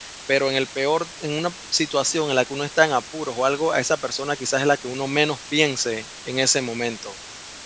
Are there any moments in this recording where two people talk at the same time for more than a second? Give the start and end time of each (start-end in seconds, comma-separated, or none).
none